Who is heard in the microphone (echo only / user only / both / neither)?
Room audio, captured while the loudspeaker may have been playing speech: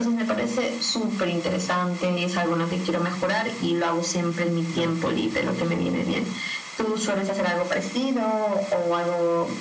both